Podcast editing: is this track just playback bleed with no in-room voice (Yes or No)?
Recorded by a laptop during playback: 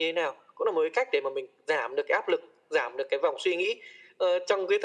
Yes